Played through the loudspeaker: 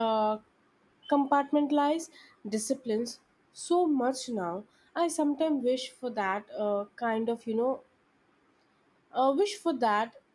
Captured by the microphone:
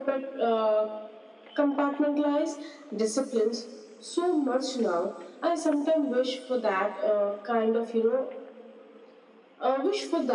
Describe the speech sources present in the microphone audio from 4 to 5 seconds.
echo only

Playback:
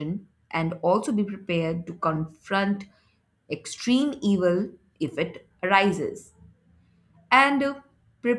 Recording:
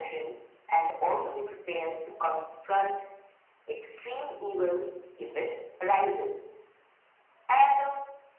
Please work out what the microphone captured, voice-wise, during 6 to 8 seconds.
echo only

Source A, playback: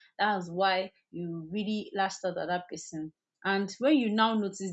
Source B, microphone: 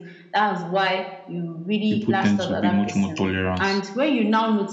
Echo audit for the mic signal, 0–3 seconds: both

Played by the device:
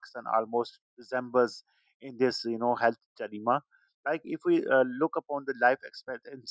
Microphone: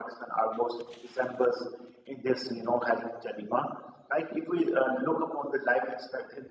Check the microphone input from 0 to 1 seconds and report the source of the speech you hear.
echo only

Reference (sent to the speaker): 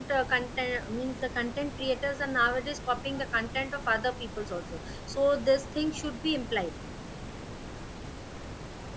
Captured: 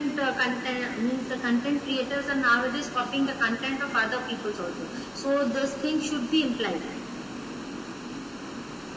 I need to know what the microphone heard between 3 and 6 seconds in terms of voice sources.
echo only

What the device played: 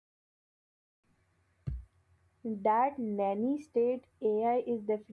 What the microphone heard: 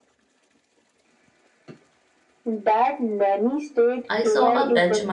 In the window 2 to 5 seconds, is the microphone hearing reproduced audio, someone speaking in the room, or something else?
both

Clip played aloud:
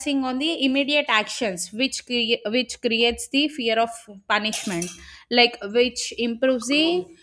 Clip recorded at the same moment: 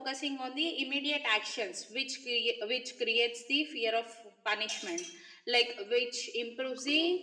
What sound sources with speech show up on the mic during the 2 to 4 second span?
echo only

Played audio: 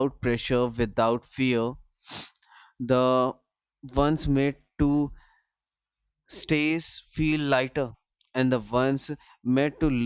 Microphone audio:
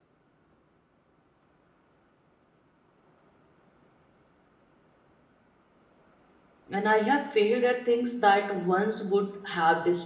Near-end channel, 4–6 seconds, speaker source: neither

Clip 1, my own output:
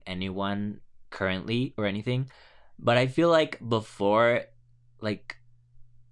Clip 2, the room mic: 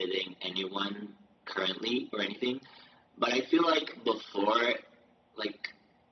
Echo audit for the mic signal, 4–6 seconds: echo only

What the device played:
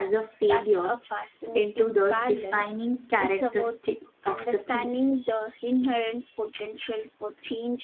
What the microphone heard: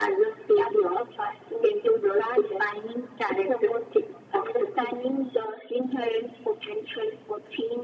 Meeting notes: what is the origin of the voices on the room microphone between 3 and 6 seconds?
echo only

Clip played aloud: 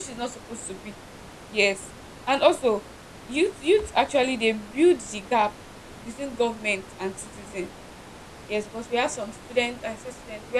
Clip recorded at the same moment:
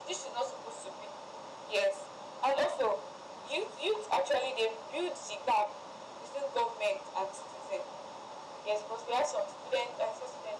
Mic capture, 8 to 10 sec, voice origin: echo only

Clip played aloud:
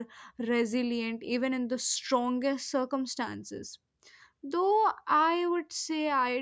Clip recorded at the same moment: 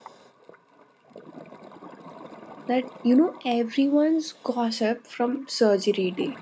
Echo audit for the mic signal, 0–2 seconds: neither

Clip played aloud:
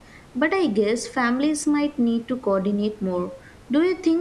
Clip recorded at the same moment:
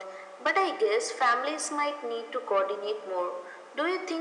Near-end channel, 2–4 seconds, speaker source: echo only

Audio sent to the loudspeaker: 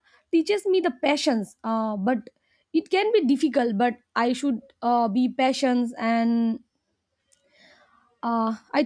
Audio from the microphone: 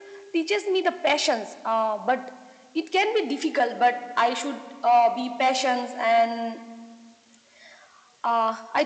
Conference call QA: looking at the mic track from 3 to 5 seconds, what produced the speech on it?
echo only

